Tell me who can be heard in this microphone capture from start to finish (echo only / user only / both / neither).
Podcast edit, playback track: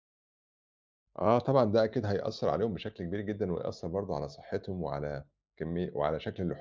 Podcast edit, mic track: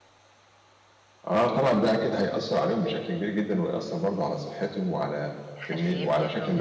both